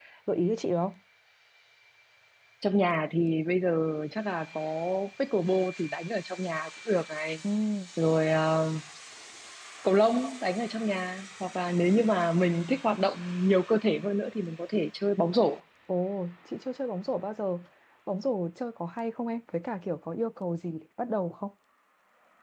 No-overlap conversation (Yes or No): Yes